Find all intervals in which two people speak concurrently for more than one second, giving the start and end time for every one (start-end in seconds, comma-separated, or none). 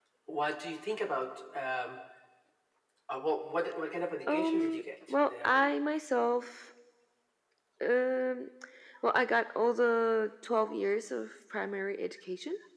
4.3-5.8